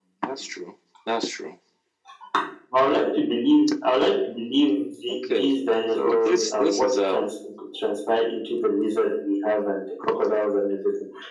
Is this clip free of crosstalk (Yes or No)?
No